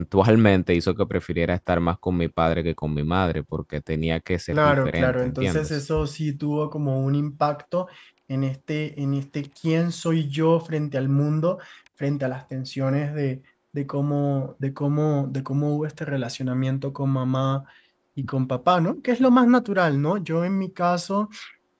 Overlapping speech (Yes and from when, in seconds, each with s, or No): Yes, from 4.5 s